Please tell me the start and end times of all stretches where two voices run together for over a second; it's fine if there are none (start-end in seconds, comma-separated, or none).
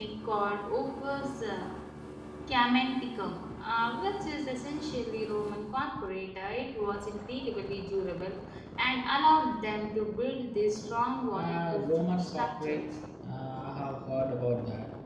11.3-12.9